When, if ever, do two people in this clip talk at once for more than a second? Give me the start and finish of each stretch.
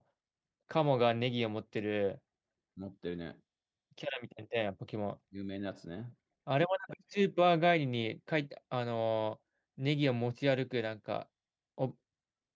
none

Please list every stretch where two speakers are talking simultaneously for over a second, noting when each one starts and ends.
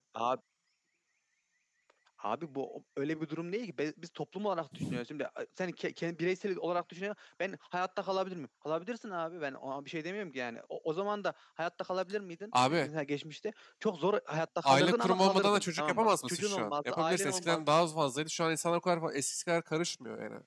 14.6-17.6

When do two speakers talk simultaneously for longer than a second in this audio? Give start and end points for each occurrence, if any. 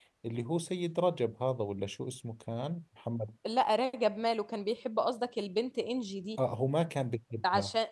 none

